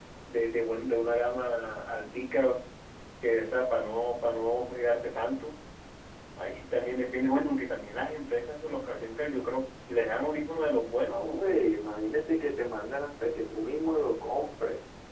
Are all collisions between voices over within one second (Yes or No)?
Yes